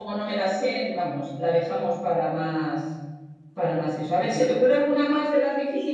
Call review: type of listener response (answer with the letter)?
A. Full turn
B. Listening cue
A